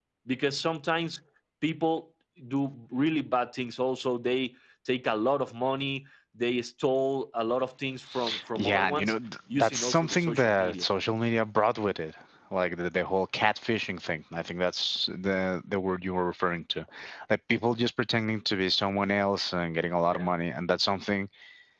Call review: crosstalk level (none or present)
present